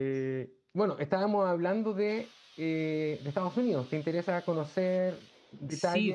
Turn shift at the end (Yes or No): Yes